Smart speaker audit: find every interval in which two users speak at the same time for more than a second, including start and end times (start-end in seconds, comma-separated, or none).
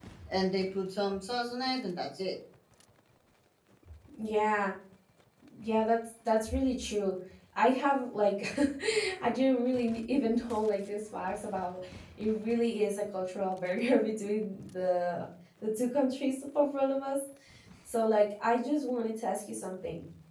none